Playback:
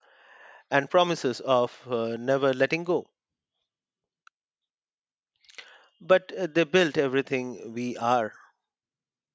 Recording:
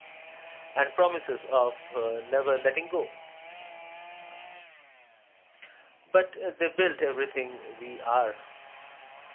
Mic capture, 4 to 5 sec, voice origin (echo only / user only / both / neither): neither